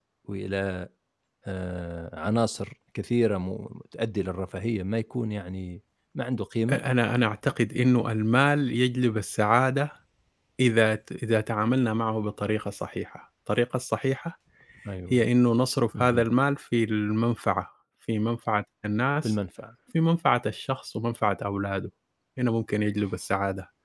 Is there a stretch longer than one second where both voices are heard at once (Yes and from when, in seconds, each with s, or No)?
No